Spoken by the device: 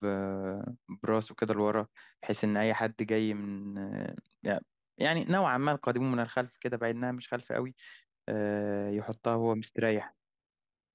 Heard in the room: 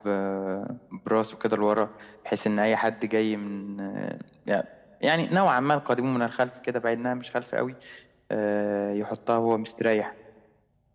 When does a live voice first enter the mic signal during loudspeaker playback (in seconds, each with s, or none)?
none